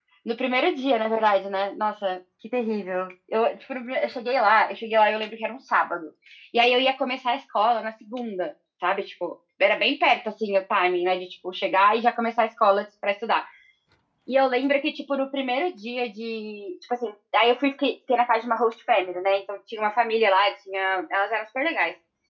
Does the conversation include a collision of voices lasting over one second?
No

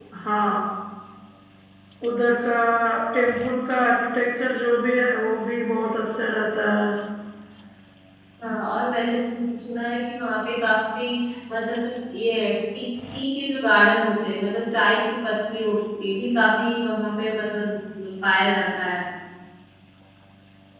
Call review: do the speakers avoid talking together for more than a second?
Yes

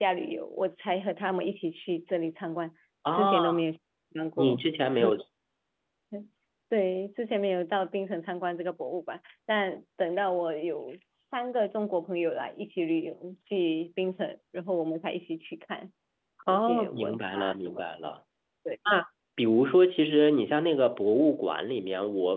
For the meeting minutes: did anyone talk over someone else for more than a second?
Yes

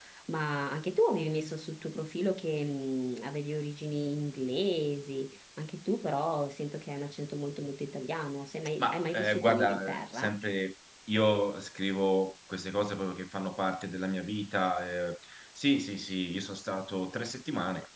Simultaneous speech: Yes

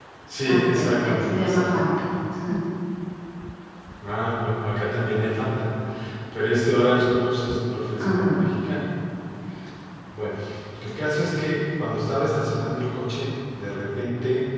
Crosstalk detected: Yes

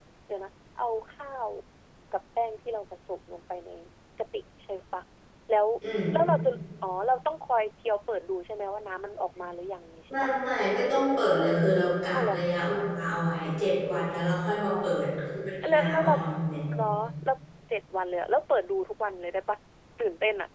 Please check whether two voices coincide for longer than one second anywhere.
No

